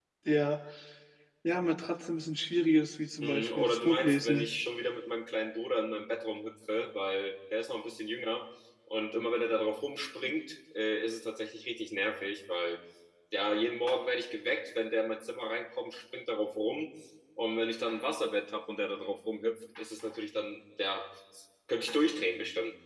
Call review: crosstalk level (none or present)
present